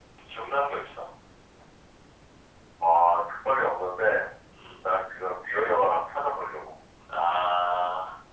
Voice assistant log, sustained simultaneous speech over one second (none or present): none